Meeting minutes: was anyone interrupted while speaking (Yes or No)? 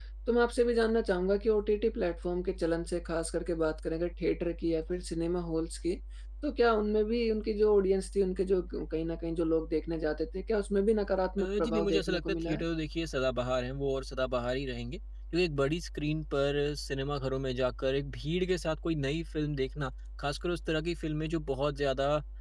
Yes